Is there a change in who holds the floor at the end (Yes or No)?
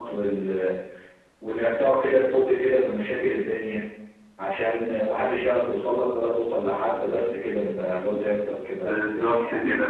Yes